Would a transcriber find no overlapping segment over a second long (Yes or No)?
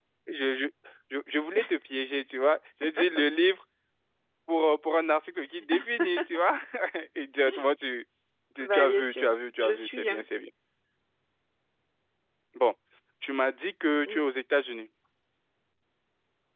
No